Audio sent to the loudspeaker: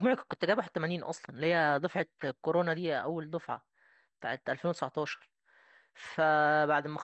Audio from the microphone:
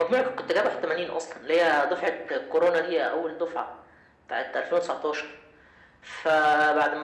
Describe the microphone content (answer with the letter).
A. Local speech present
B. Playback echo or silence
B